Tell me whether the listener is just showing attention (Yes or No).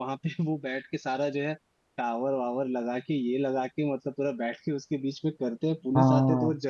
Yes